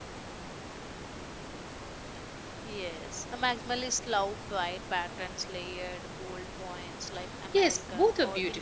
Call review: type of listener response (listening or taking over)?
taking over